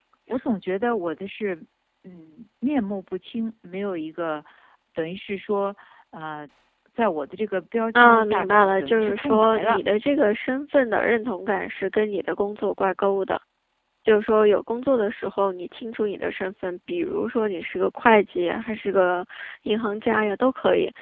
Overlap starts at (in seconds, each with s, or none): 7.9 s